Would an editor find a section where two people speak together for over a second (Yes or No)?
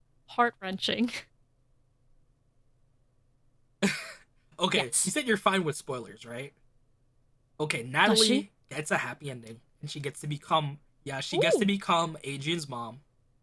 No